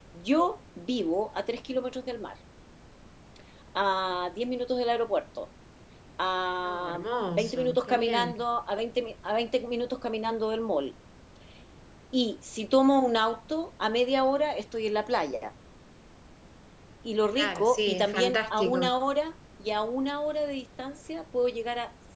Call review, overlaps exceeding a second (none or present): present